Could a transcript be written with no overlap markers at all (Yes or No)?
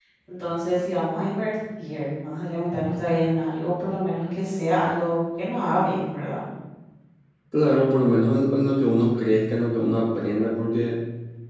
Yes